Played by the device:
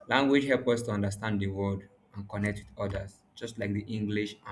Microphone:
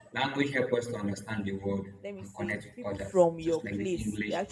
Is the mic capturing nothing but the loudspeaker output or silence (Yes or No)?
No